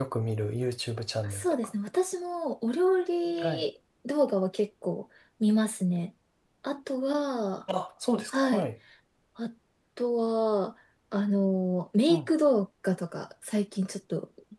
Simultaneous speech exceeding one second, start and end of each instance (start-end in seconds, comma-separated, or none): none